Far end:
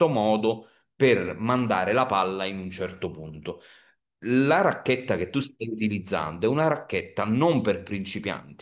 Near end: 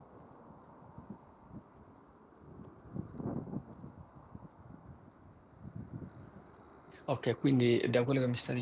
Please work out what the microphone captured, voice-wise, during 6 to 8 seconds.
user only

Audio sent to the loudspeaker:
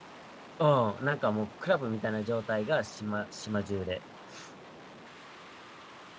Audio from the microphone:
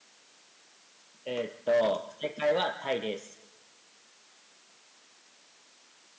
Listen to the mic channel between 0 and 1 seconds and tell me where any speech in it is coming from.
neither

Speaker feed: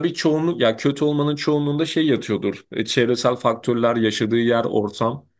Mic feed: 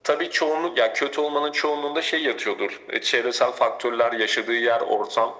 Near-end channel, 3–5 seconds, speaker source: echo only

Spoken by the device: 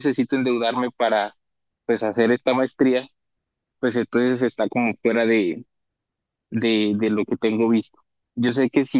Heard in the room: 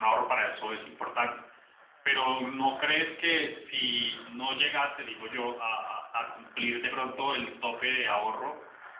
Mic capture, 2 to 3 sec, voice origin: user only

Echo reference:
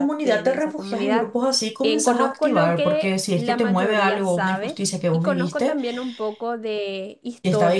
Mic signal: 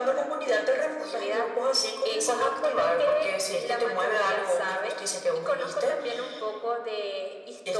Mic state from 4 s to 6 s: echo only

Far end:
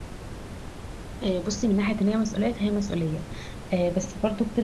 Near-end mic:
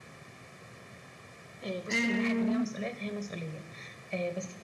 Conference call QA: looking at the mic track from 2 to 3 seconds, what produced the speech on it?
both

